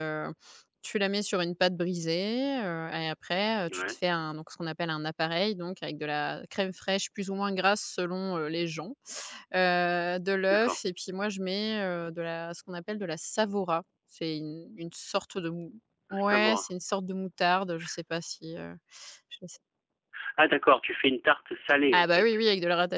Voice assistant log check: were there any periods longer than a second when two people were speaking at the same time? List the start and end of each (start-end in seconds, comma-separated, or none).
none